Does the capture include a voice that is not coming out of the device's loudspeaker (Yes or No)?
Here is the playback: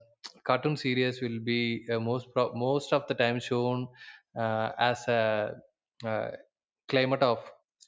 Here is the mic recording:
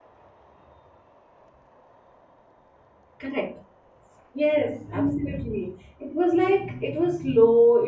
Yes